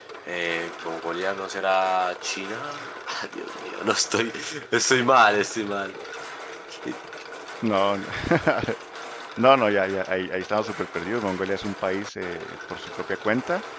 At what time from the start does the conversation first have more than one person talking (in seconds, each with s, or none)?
none